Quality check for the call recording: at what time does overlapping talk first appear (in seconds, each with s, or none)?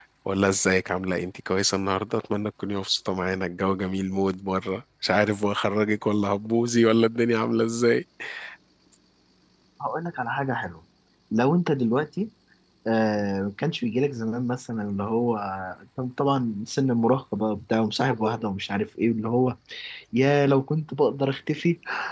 none